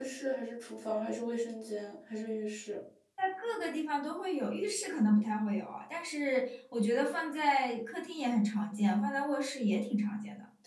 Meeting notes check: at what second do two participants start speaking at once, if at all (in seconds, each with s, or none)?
none